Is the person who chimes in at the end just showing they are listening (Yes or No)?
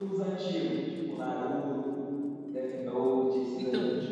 No